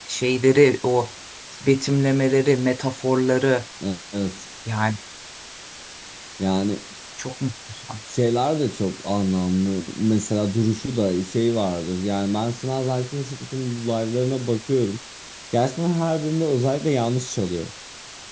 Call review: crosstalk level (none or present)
none